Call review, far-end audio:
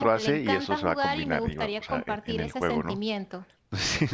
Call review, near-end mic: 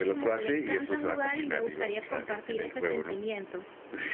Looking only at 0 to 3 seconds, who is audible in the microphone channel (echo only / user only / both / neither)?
echo only